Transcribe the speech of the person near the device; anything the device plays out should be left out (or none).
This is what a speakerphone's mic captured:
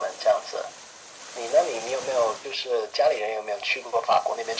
none